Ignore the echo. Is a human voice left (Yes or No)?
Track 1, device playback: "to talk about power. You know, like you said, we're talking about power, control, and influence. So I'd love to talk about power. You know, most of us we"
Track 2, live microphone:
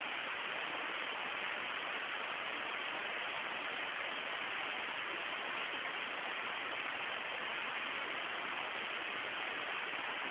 No